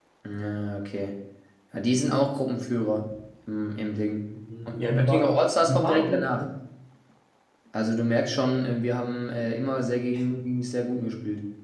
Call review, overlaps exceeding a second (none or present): present